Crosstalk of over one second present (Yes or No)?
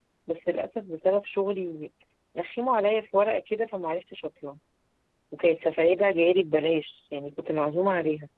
No